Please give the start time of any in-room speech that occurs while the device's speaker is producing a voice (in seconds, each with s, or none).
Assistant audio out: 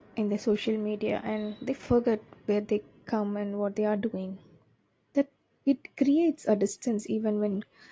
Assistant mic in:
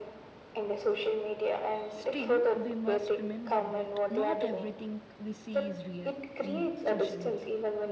1.8 s